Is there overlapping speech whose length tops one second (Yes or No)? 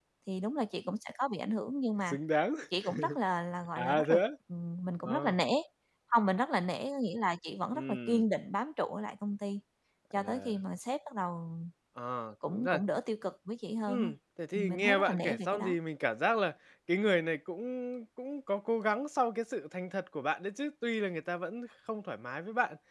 Yes